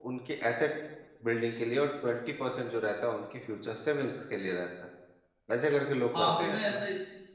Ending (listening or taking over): taking over